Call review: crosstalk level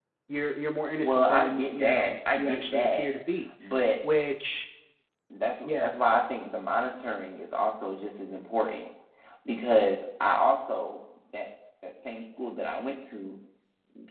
present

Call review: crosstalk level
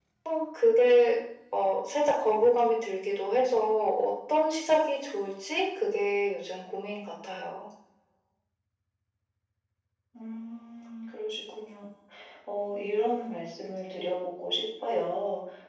none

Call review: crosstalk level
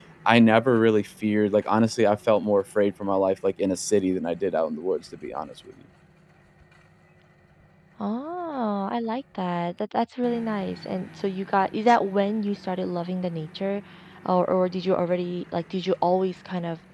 none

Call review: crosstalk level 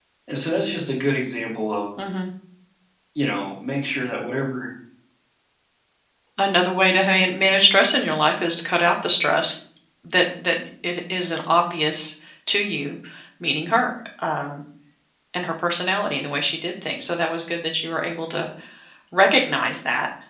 none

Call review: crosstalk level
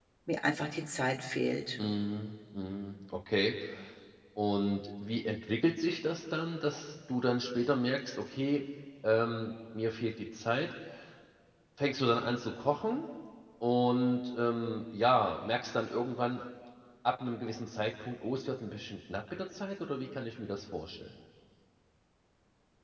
none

